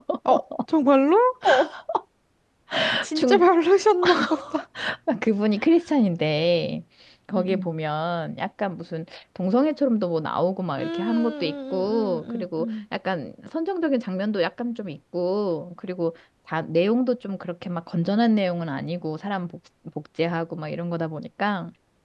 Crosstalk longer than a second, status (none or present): present